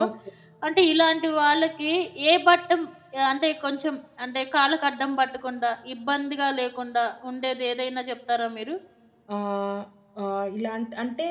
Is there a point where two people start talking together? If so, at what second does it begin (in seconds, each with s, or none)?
none